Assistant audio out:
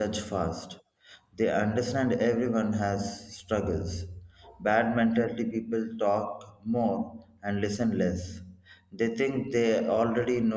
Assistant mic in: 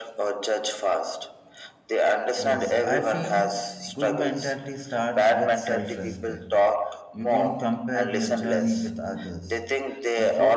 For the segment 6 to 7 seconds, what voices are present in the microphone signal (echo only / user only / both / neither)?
both